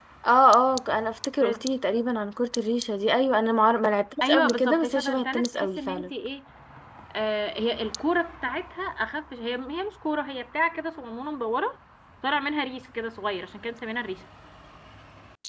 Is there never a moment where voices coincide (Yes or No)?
No